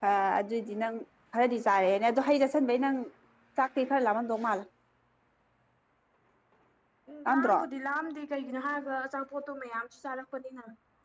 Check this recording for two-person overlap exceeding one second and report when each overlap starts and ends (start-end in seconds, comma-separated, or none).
none